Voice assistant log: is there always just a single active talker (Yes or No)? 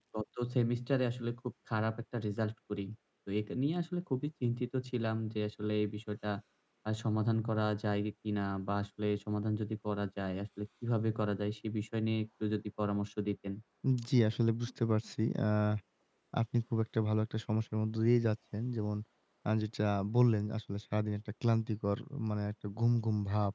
Yes